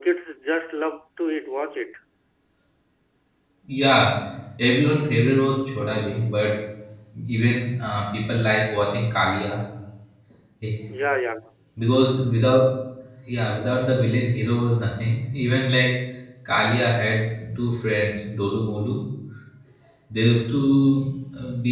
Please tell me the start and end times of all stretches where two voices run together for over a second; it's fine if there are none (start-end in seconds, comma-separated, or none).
none